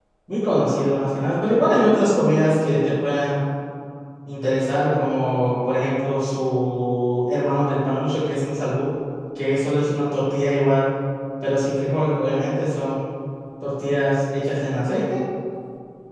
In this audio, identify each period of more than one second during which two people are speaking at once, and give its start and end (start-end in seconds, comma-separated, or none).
none